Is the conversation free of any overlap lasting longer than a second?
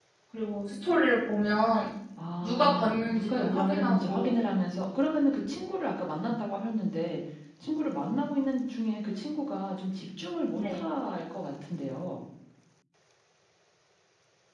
No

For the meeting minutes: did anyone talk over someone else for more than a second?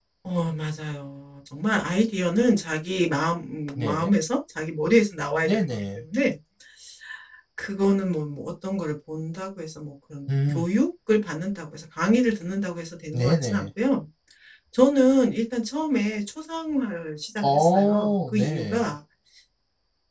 Yes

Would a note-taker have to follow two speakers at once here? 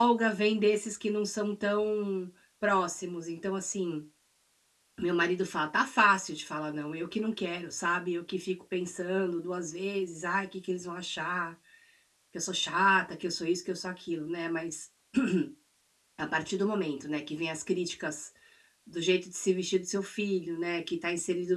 No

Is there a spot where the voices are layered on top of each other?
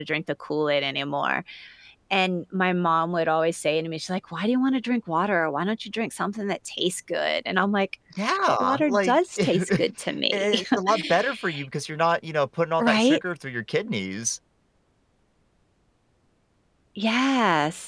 Yes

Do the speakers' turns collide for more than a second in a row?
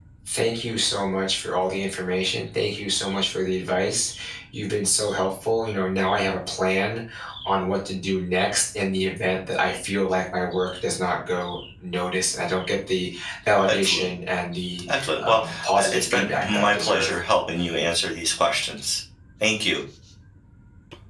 Yes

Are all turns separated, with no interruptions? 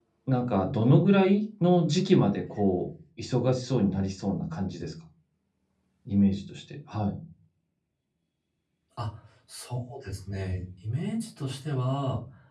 Yes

